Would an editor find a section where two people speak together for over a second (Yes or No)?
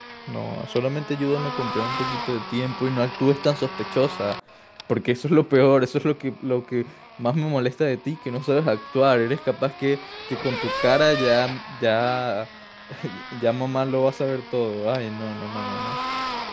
No